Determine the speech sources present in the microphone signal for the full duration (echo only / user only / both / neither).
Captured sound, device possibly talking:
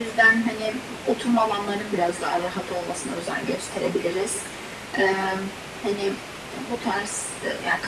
echo only